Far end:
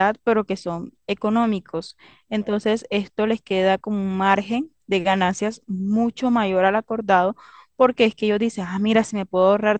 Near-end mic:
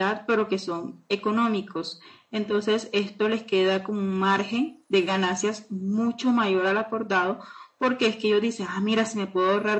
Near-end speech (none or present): none